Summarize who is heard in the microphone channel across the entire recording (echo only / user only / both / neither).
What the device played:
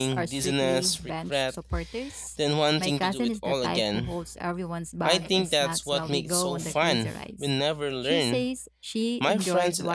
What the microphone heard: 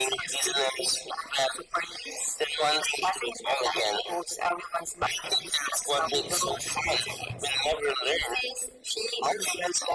echo only